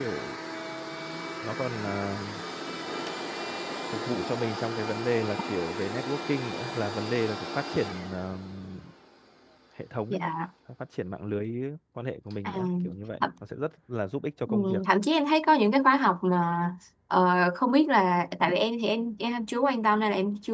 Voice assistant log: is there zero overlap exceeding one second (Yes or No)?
Yes